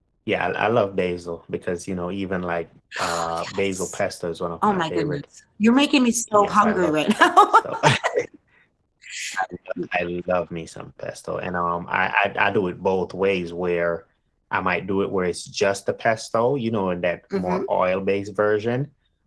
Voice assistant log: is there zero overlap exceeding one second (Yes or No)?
No